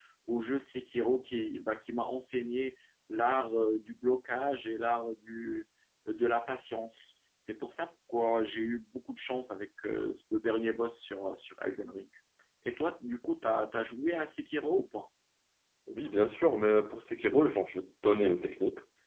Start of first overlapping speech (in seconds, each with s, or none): none